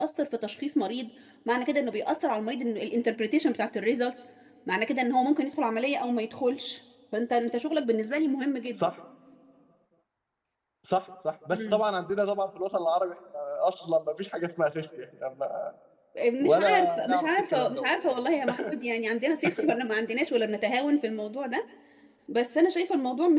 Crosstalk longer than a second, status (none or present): present